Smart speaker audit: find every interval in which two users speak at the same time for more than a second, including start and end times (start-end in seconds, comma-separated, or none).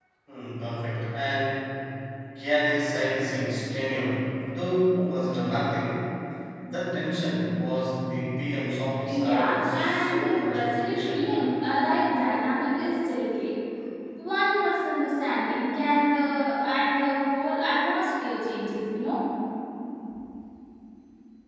9.1-11.3